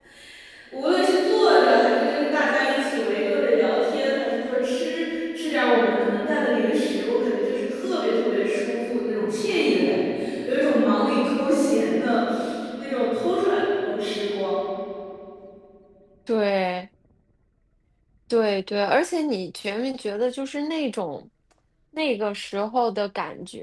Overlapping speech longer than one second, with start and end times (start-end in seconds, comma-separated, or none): none